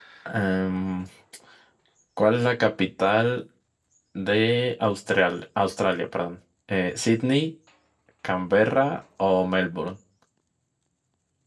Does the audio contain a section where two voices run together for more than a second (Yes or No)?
No